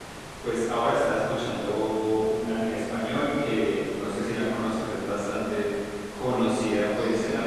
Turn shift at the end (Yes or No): No